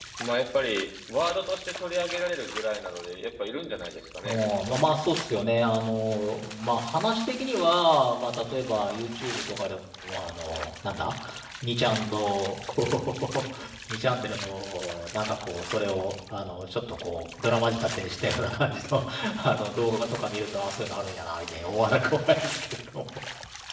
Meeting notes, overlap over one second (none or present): none